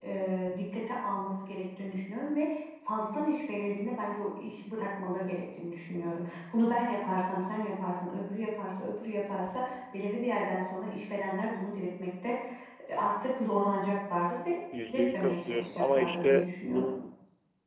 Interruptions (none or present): present